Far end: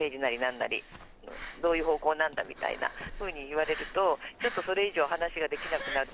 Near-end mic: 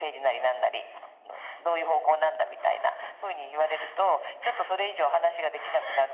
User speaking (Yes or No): No